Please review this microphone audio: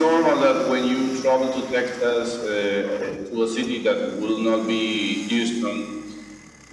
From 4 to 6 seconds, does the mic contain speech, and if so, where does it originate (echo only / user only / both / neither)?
echo only